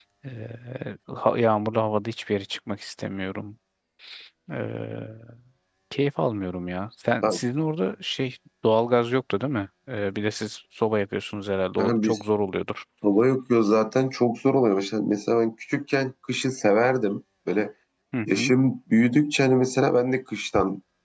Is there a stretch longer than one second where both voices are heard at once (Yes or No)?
No